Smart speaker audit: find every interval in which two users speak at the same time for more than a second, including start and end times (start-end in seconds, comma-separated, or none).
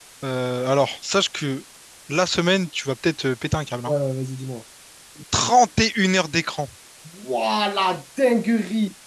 none